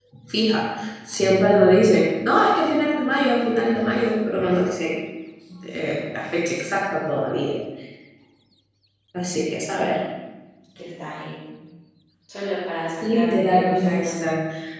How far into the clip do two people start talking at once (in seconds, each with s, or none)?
13.0 s